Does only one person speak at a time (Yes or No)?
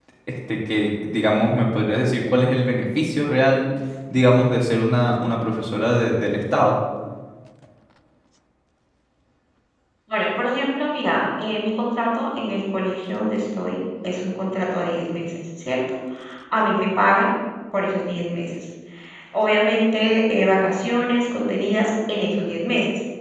Yes